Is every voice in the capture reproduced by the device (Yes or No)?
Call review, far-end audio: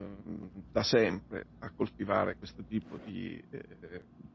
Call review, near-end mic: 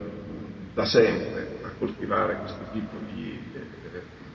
Yes